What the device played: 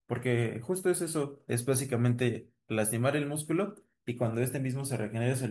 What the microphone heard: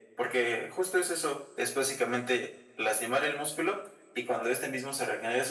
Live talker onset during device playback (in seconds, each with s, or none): none